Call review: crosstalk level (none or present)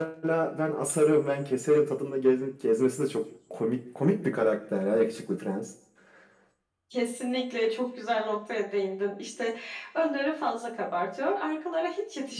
none